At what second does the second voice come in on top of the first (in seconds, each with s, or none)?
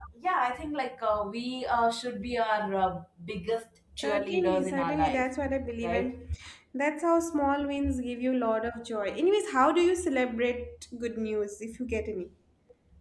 4.0 s